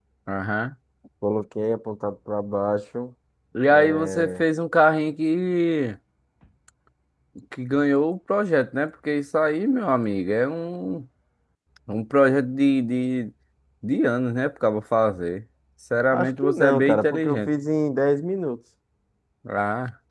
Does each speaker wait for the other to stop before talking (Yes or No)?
No